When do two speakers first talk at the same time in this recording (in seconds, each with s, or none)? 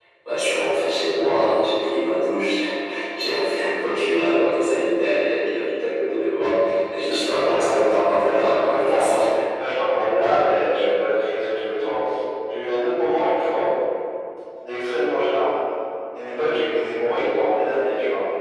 7.1 s